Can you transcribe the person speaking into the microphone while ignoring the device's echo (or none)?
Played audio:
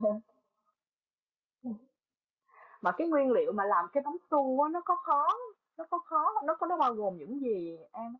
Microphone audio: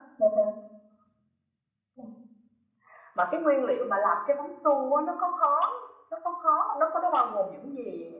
none